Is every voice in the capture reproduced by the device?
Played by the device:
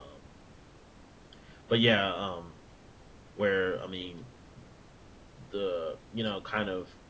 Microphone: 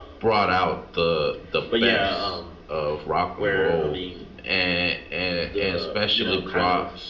No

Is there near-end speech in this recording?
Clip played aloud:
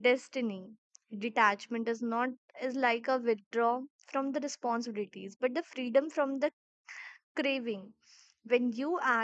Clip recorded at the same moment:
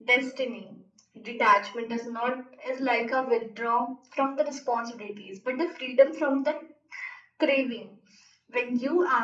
No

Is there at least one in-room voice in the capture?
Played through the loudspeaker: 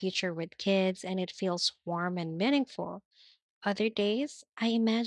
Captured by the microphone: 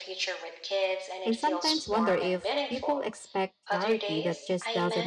Yes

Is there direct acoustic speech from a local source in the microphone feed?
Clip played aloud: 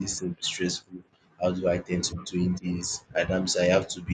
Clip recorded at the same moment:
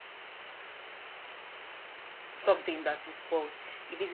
Yes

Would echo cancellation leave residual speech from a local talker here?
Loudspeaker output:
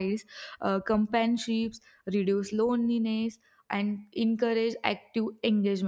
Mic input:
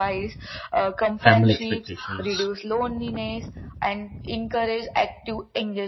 Yes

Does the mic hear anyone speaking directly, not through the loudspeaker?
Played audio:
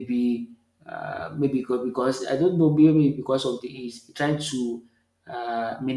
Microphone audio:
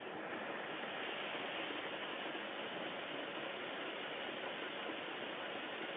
No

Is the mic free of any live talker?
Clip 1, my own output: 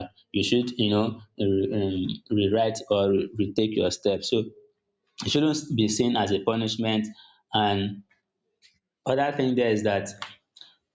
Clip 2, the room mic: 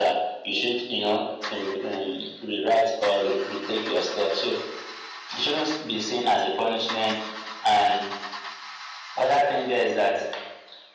Yes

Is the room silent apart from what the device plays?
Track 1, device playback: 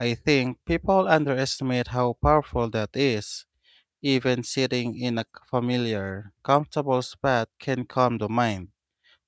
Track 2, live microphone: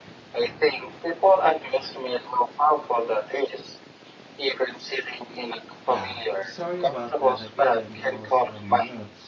No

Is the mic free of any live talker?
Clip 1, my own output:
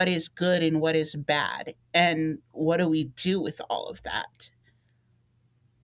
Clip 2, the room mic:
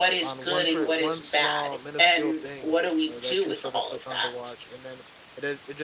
No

